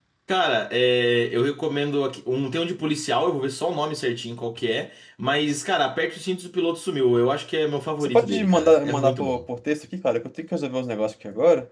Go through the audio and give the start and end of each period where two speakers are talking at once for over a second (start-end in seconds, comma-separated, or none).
8.0-9.4